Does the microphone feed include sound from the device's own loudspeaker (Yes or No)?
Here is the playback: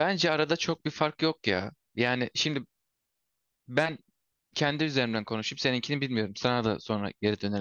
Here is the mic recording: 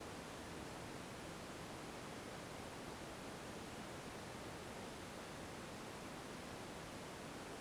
No